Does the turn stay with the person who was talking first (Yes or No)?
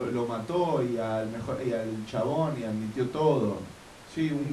No